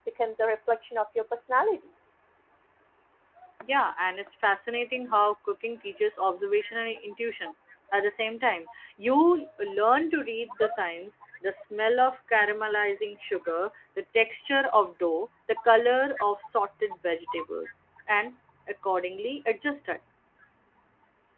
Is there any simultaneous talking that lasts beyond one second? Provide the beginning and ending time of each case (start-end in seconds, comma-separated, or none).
none